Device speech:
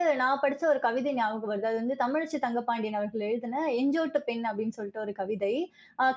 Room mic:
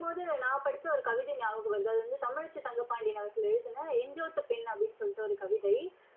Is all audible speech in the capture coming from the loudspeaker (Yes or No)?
Yes